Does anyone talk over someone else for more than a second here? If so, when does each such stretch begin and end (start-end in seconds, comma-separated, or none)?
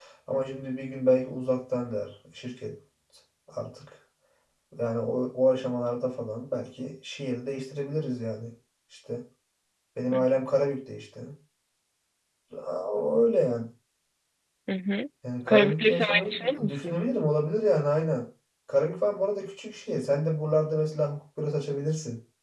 15.5-17.0